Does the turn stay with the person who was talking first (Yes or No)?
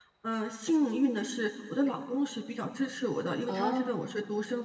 Yes